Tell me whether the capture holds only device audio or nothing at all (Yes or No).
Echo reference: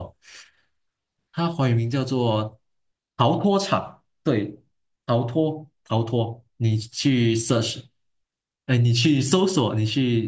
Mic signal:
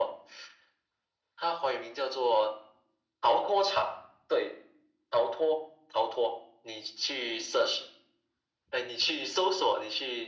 Yes